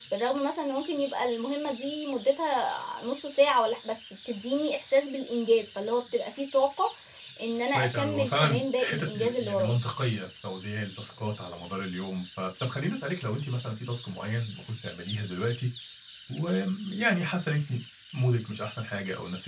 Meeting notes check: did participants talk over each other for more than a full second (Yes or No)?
Yes